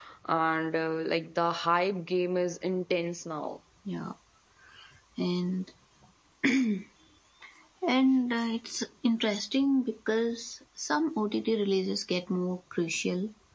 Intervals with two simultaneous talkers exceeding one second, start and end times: none

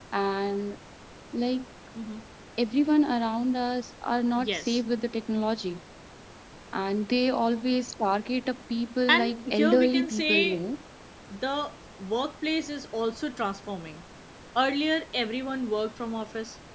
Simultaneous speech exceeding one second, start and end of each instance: 9.1-10.6

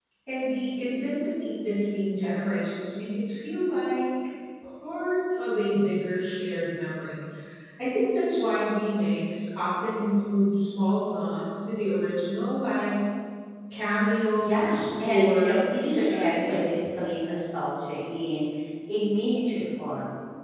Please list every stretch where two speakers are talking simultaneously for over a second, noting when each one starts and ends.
14.4-16.8

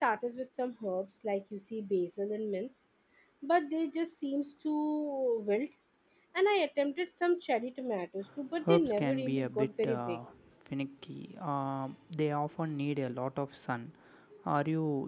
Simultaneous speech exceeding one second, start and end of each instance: 8.7-10.2

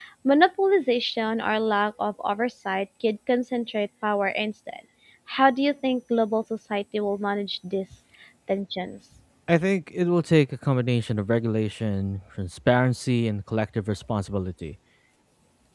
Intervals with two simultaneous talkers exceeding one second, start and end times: none

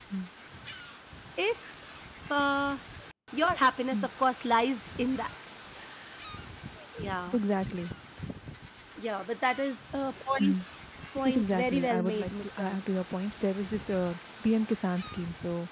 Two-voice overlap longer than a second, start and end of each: 11.2-12.8

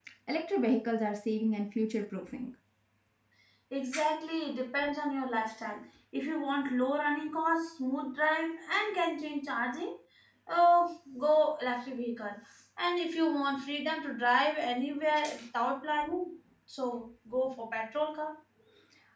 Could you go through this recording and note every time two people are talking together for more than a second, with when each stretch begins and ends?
none

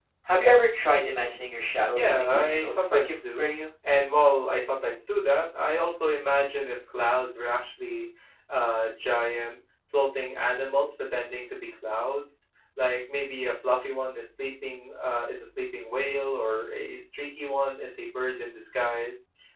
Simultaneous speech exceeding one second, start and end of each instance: 1.9-3.5

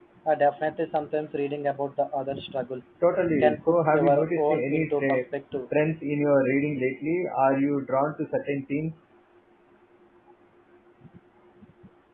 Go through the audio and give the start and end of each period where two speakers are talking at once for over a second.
3.4-5.2

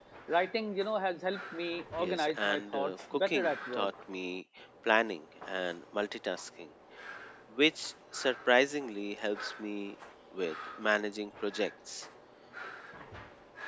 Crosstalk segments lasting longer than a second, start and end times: 2.0-3.9

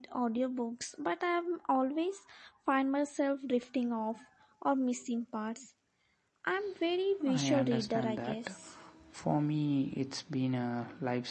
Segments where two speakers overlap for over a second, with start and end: 7.3-8.6

